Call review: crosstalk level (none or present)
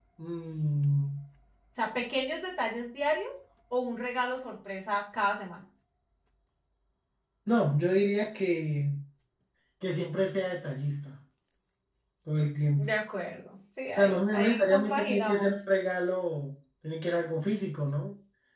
present